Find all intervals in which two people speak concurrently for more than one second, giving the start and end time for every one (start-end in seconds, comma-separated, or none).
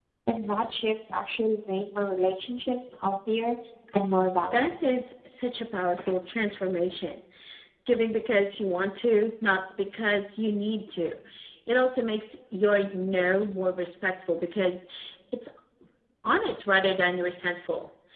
none